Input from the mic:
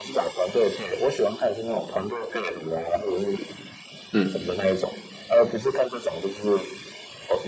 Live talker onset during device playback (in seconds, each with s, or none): 4.1 s